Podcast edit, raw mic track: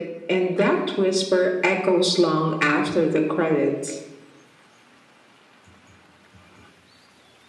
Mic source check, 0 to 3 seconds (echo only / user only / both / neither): echo only